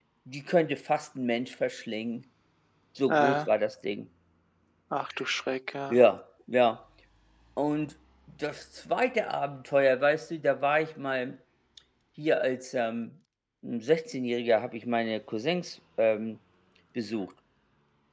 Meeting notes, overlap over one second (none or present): none